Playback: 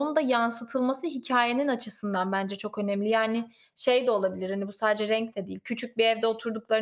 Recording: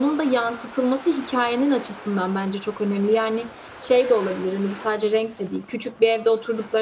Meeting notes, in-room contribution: none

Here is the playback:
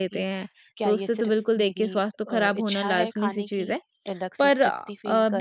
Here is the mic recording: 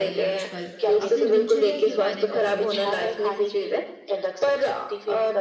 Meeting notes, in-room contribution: present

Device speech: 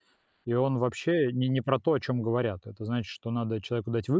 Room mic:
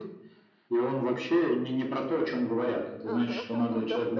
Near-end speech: present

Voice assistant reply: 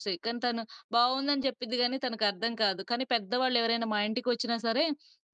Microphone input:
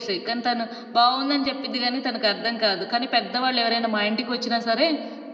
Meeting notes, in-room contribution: none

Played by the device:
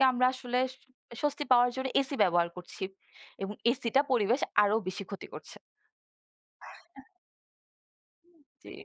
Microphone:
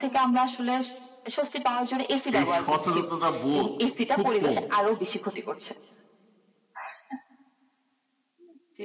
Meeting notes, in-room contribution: present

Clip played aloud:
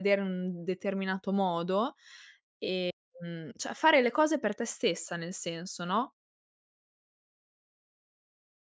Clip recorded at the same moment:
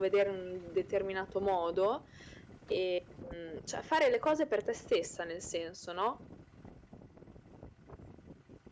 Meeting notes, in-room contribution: none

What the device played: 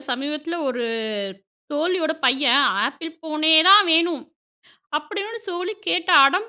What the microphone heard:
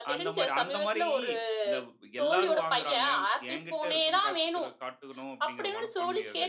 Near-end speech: present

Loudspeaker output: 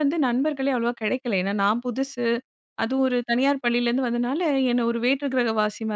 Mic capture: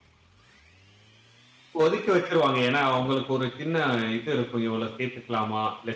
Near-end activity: present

